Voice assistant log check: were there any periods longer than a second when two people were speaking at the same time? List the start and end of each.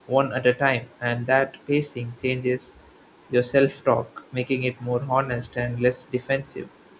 none

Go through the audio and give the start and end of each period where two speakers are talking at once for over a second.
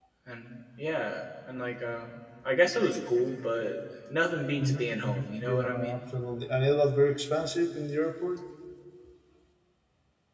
4.6-6.0

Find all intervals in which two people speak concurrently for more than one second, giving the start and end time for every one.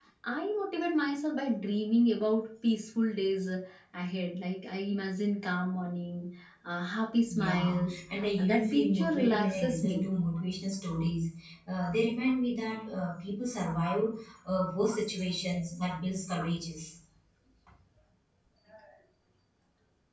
7.3-10.1

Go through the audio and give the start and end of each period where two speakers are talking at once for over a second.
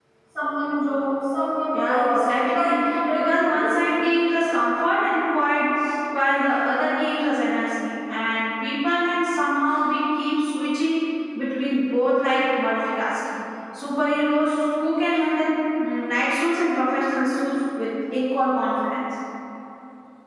1.7-3.9

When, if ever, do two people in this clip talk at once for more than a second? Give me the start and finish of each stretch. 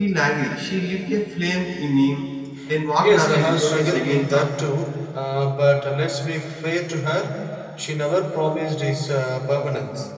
3.0-4.5

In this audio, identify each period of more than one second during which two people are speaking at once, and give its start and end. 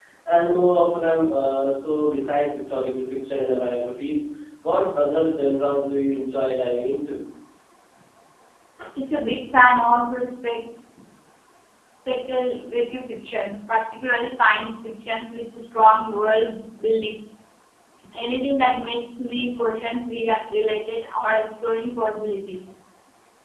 none

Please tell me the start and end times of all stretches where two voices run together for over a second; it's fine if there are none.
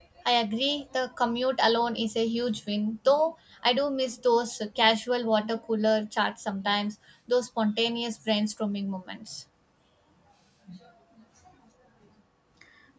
none

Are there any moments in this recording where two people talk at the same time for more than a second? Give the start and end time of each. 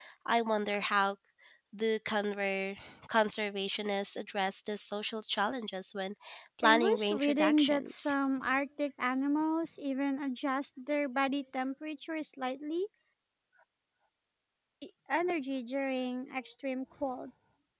6.6-8.1

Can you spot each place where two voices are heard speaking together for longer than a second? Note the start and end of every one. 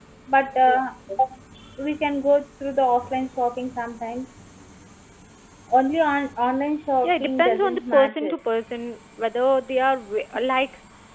7.0-8.3

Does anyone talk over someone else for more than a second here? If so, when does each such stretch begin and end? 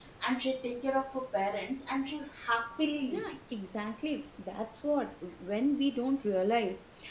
none

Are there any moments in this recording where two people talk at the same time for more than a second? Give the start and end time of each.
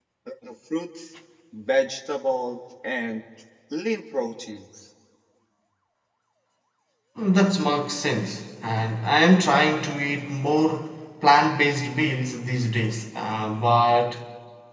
none

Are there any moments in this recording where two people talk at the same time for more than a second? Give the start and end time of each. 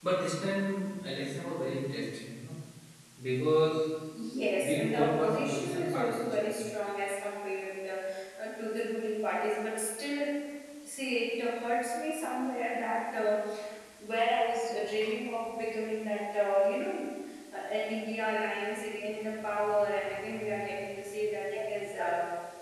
4.6-6.6

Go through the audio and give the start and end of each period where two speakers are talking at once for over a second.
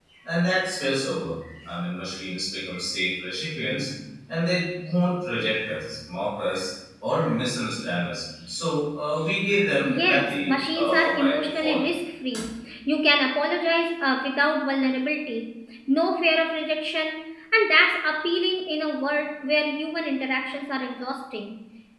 9.9-11.8

